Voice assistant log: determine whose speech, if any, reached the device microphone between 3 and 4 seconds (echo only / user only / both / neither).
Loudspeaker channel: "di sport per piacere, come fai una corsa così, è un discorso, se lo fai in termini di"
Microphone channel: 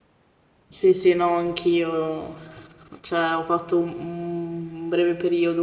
user only